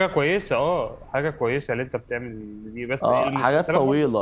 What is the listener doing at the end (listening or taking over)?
taking over